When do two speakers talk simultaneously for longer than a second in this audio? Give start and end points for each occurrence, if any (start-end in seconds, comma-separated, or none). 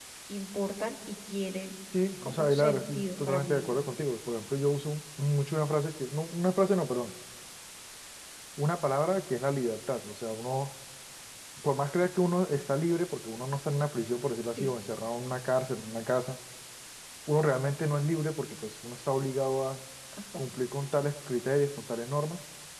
2.2-3.8